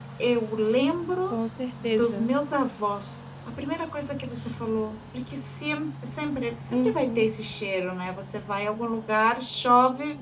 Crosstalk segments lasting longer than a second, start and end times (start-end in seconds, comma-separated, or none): none